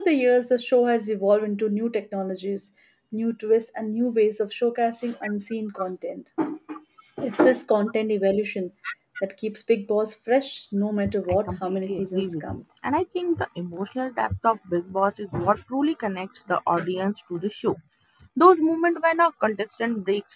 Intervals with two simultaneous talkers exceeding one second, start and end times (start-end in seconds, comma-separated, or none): 11.3-12.6